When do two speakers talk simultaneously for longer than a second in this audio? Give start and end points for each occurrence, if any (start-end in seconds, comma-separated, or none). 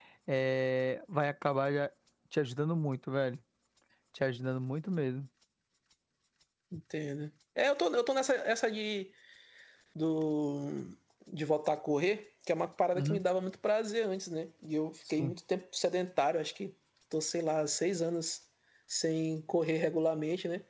none